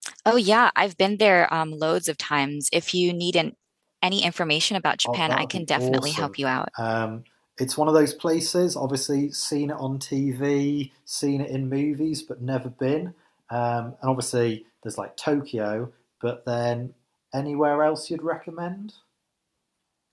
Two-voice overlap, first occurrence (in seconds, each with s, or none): 5.0 s